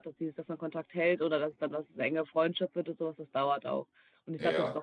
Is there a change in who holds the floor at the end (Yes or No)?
No